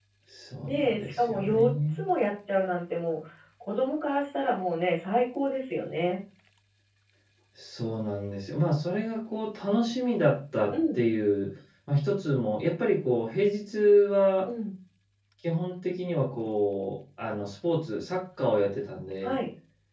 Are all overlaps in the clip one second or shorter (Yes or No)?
No